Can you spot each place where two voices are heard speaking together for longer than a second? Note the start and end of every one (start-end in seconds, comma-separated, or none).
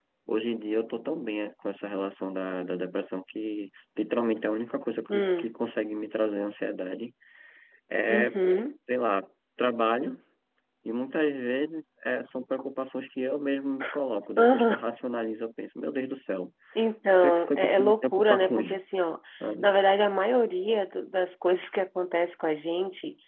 17.2-18.8